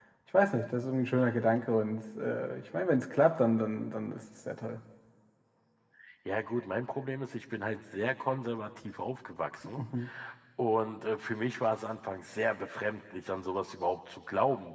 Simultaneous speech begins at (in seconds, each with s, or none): none